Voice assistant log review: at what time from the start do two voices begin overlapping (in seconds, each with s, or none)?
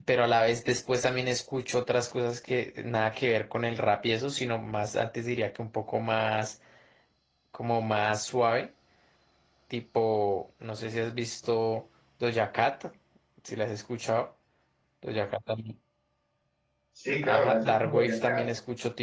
17.2 s